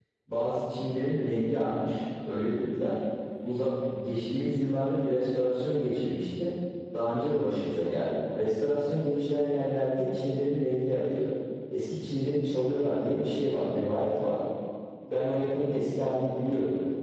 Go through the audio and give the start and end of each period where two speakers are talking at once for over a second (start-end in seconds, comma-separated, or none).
none